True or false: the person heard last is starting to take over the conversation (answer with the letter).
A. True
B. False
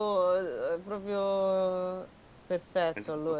A